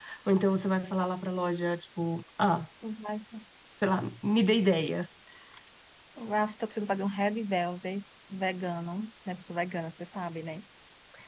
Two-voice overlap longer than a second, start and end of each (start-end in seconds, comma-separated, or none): none